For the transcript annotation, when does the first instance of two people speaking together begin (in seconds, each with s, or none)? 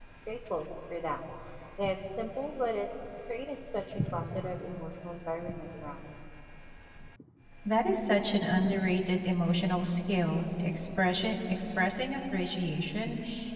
none